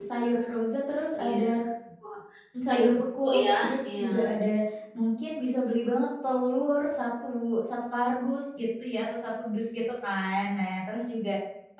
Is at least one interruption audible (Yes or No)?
Yes